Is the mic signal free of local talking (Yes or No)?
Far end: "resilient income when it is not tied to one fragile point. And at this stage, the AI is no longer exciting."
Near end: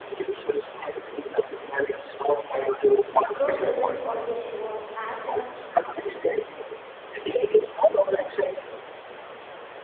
No